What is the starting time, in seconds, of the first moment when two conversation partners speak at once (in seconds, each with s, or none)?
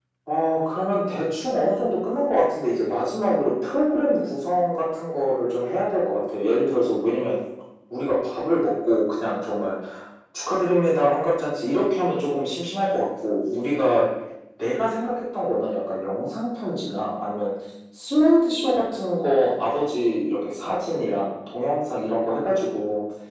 none